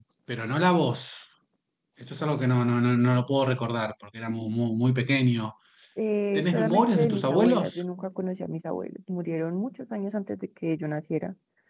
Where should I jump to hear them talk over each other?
6.4 s

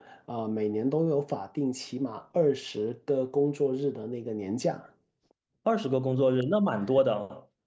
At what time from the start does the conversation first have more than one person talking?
none

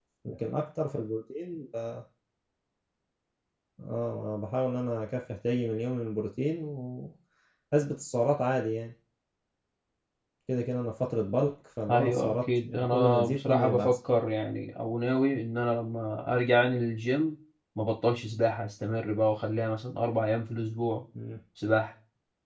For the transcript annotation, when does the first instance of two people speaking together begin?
11.9 s

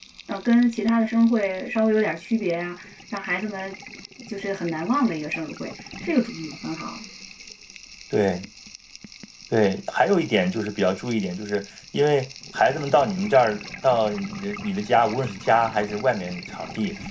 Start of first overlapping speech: none

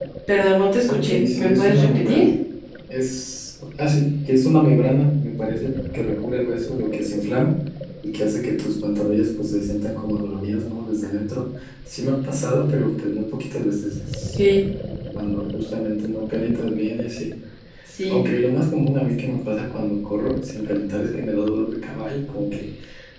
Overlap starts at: 0.9 s

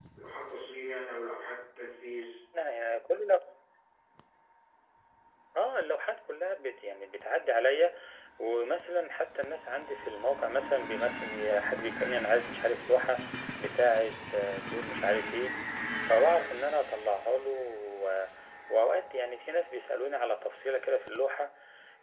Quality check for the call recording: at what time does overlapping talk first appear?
none

